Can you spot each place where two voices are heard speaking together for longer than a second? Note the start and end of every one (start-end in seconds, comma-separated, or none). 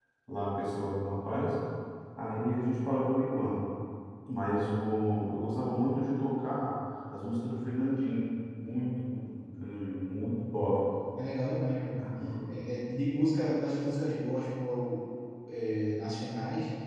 none